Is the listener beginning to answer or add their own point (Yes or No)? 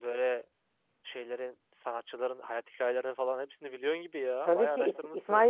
Yes